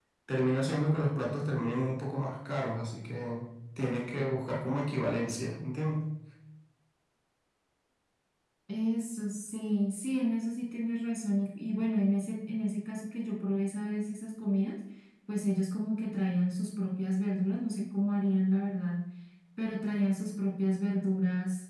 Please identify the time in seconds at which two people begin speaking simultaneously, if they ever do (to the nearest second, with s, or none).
none